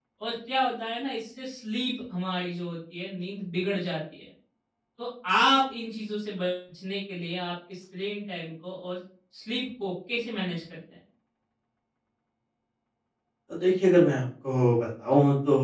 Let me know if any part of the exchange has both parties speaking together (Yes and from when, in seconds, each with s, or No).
No